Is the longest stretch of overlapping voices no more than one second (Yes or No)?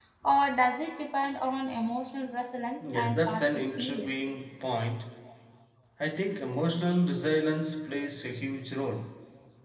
No